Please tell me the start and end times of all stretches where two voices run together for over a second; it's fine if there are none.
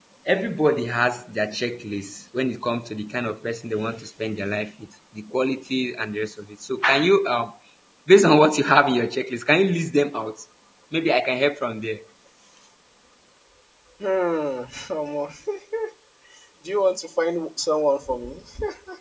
none

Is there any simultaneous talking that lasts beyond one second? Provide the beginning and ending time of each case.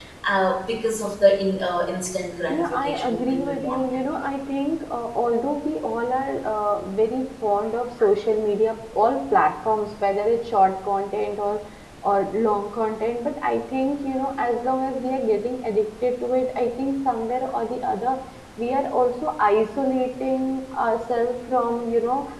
2.5-3.9

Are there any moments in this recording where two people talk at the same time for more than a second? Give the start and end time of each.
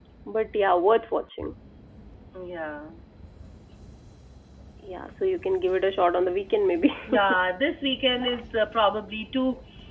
none

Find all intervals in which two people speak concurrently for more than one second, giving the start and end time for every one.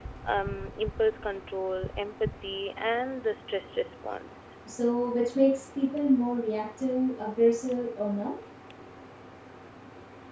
none

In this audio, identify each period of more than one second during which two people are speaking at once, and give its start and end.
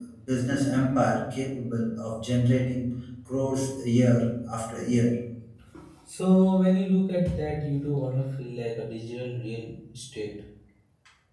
none

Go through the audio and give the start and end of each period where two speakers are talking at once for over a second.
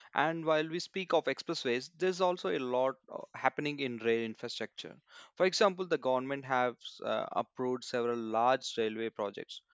none

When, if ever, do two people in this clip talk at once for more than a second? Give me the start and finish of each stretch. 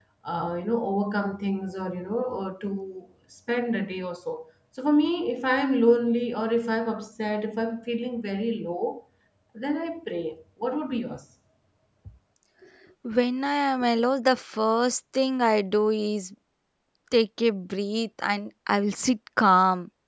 none

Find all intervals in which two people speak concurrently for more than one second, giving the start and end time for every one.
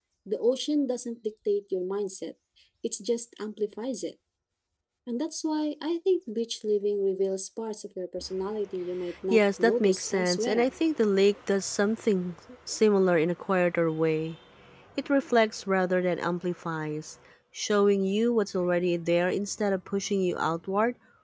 9.3-10.7

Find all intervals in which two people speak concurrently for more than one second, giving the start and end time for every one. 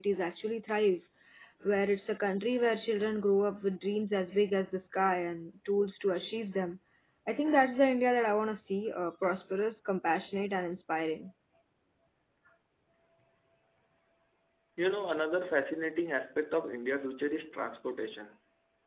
none

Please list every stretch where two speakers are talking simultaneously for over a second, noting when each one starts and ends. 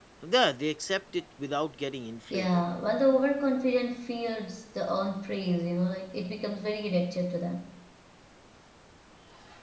none

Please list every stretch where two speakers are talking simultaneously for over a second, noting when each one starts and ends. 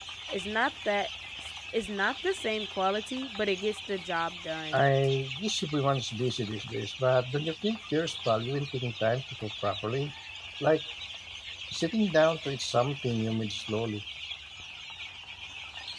none

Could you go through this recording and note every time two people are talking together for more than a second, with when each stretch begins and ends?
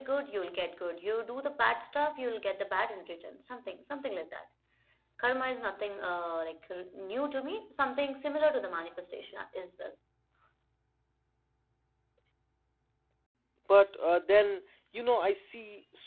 none

